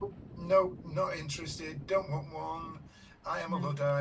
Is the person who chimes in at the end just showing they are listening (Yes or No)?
Yes